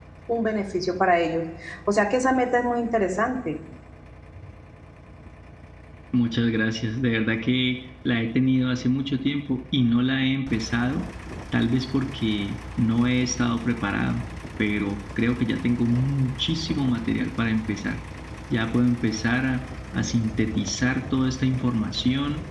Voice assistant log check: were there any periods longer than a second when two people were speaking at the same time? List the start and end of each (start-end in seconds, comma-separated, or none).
none